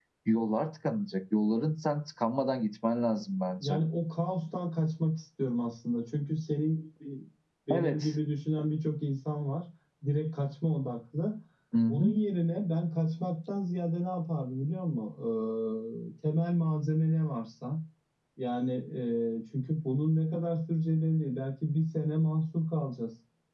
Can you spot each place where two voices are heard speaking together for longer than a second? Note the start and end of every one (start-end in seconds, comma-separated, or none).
none